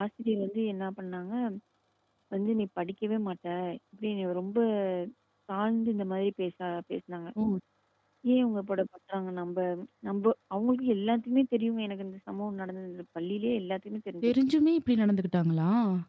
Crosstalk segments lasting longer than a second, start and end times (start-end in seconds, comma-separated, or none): none